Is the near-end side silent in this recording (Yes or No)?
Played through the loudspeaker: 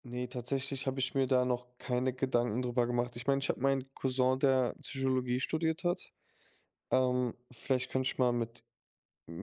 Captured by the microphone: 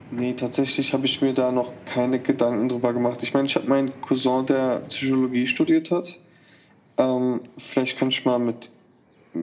Yes